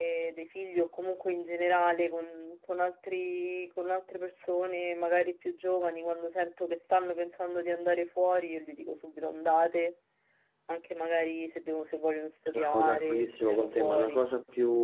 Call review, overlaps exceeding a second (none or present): present